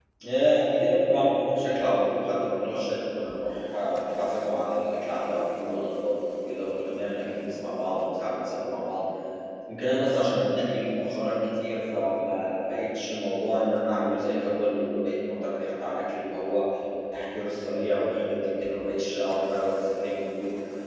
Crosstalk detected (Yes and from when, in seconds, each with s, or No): No